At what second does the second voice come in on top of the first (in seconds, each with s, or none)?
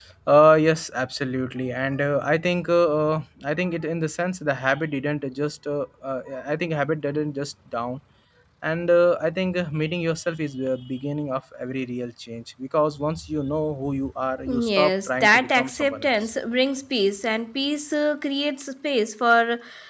14.5 s